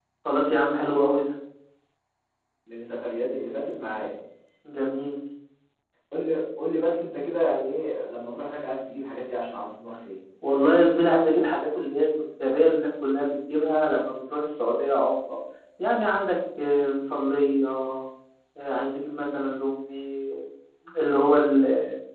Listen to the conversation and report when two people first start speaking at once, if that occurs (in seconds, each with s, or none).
none